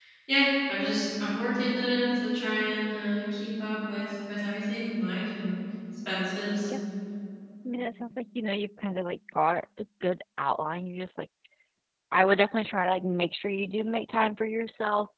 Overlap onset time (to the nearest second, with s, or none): none